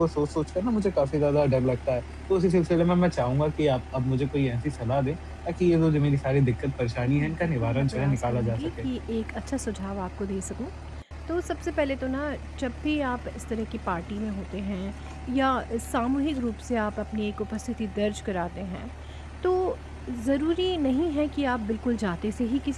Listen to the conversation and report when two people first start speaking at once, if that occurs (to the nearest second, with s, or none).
7 s